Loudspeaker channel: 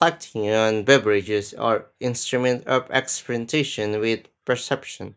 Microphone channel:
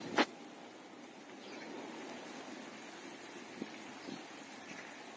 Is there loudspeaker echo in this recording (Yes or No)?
No